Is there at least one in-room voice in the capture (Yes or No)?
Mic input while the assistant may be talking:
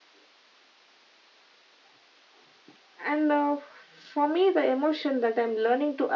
No